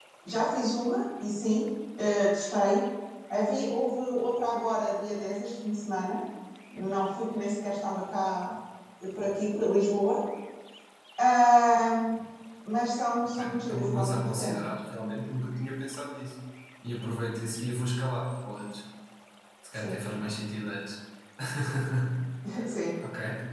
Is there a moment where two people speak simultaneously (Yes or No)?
Yes